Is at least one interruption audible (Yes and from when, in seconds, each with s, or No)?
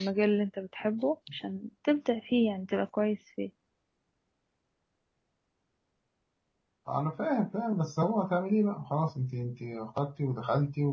No